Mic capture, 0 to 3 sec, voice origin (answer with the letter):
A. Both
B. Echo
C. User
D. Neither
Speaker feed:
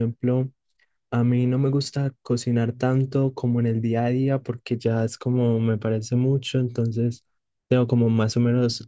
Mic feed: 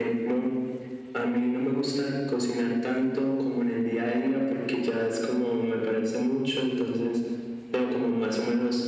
B